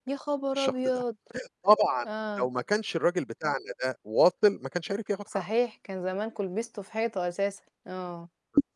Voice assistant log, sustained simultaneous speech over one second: none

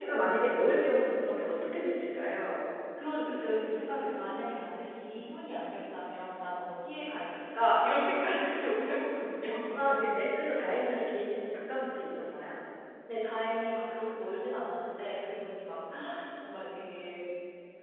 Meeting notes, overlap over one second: none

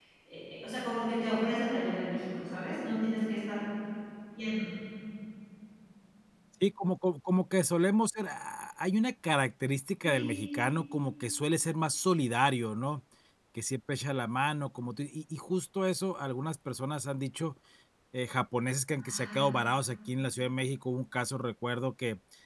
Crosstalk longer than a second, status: none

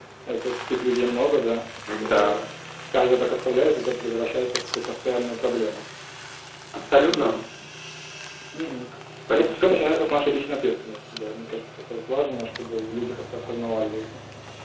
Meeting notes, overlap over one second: none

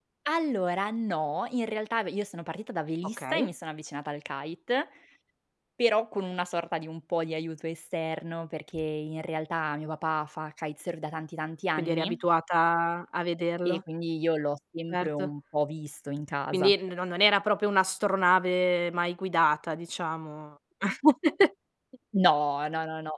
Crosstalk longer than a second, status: none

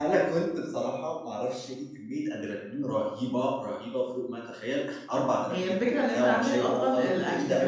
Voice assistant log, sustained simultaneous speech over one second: present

